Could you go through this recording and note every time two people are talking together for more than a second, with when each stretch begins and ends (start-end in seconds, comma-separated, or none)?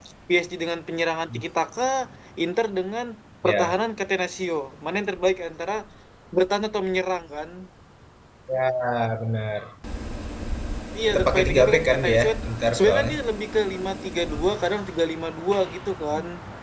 11.1-13.1